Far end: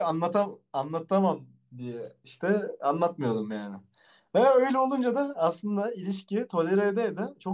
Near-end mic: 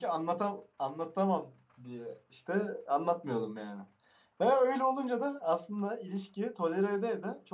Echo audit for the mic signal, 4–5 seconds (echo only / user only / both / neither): echo only